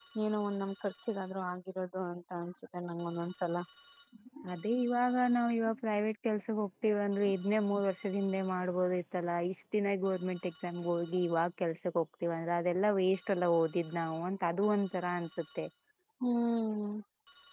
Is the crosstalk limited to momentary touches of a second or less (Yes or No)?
Yes